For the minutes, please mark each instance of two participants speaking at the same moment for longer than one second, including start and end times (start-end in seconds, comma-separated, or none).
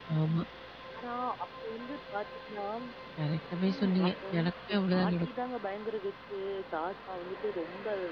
3.7-5.3